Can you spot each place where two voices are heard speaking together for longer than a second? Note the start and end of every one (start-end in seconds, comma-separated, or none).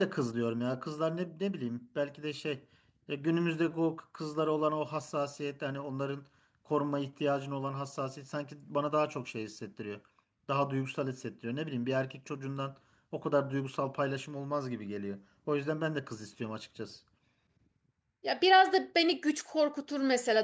none